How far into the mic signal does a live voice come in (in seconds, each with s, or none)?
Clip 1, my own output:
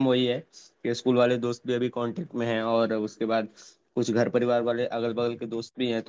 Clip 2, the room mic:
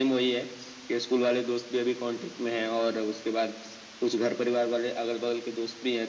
none